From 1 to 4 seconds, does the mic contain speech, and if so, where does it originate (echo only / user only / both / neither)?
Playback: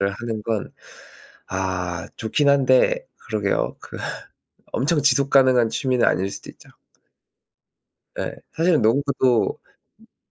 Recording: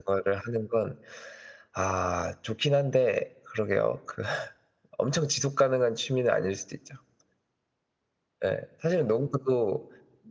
echo only